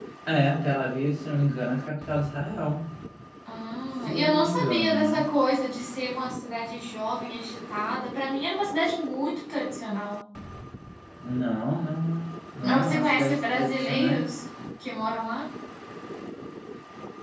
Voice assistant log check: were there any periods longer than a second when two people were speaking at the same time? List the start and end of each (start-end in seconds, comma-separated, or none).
4.0-5.3, 12.6-14.2